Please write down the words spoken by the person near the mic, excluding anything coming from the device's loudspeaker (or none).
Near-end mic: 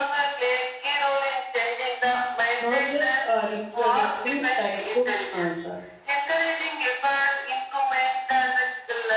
not just uh, reproducting textbooks' answer.